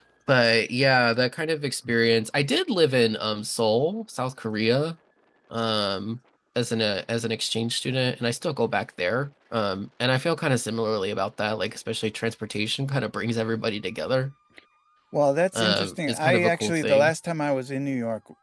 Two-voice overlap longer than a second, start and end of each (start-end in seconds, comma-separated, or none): 15.6-17.1